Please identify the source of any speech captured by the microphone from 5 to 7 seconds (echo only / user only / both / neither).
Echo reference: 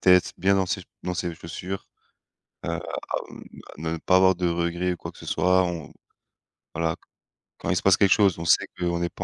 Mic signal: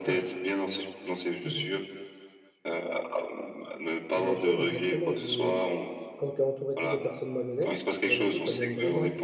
both